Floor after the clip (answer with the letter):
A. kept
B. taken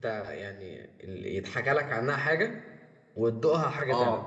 B